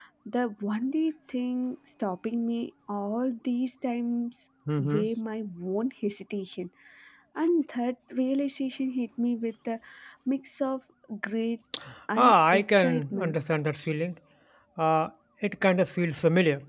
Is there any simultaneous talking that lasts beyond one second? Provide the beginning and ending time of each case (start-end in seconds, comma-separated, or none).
12.2-13.4